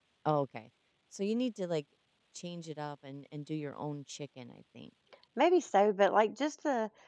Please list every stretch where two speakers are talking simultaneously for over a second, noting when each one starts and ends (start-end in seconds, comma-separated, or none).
none